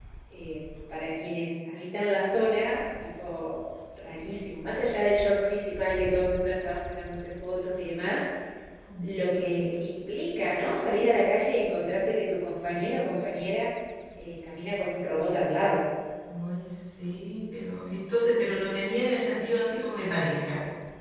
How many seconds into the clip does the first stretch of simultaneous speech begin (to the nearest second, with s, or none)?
none